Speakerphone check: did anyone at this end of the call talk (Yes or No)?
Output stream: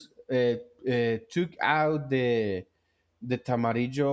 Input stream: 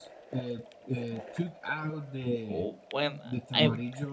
Yes